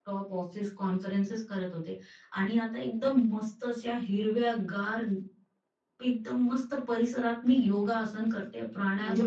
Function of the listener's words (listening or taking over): taking over